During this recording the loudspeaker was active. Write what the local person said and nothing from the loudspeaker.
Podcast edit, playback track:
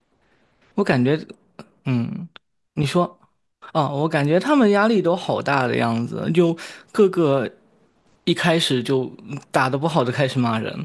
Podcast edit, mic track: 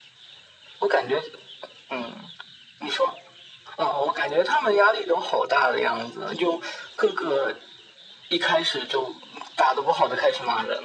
none

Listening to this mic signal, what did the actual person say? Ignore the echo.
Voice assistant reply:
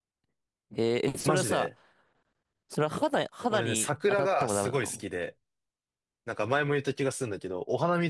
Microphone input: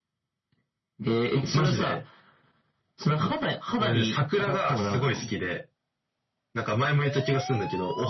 none

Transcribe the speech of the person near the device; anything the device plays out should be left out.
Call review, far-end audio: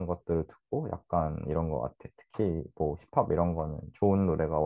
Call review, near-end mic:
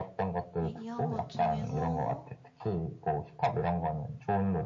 얘기한 것 중에서.

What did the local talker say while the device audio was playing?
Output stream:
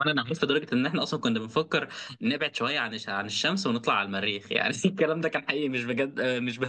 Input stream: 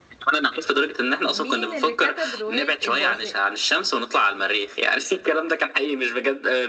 مين اللي كتب روايه البؤساء

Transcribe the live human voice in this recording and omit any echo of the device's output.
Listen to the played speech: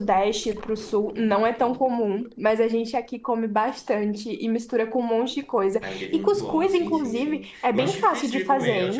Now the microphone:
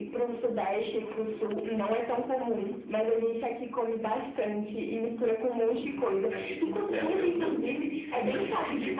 hum, eu, eu, eu. Pode perguntar.

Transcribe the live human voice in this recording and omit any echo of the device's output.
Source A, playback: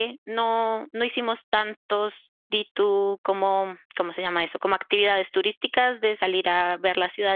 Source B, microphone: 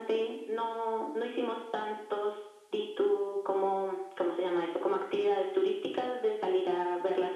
none

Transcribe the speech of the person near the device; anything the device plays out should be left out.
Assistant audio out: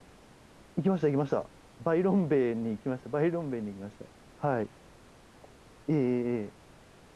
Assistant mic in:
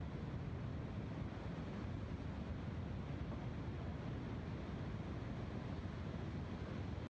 none

